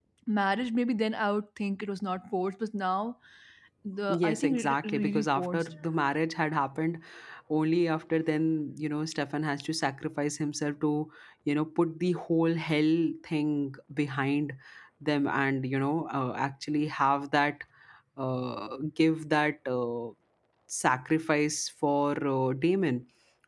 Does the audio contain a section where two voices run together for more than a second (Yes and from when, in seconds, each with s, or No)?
Yes, from 4.1 s